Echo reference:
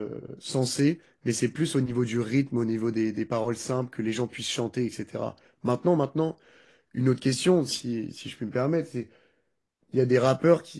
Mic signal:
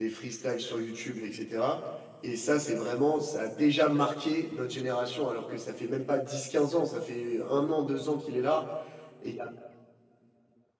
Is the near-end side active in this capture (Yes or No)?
Yes